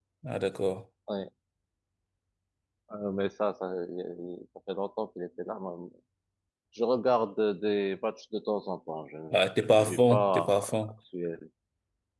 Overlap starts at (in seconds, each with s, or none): 9.3 s